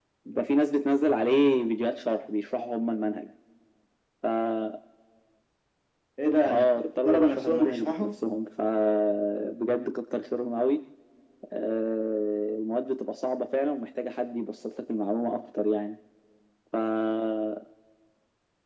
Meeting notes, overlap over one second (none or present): present